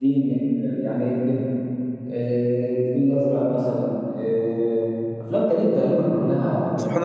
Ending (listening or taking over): taking over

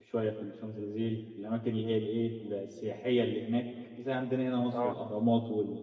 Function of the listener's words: listening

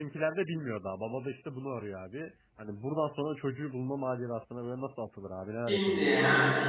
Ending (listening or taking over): taking over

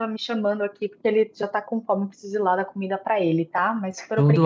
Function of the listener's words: taking over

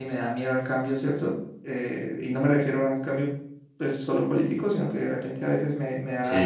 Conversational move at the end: listening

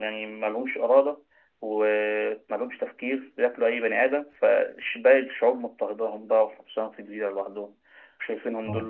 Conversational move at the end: listening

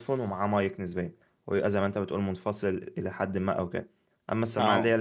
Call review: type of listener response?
listening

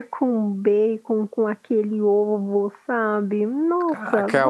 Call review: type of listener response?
taking over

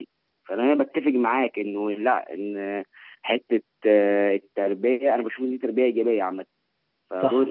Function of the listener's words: listening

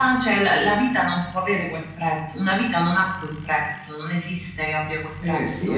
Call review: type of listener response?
taking over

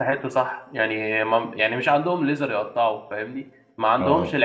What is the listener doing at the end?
listening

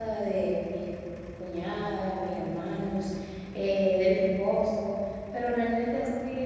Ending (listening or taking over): listening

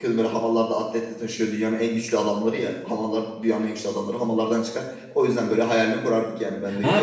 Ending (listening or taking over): taking over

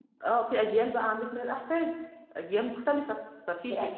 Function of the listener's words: listening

